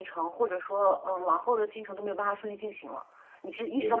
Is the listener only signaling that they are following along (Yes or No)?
Yes